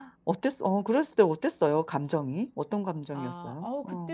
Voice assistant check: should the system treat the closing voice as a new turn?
Yes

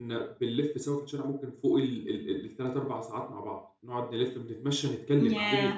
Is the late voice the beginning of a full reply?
No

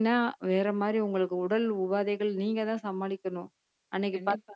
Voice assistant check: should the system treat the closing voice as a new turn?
Yes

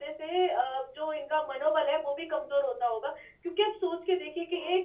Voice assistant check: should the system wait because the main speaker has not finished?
Yes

